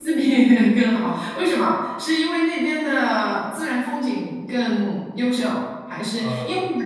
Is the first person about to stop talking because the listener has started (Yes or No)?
No